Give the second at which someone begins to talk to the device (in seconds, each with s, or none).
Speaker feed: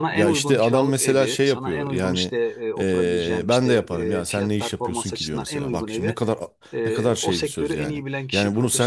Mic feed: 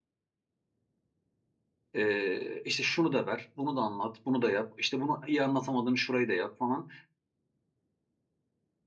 1.9 s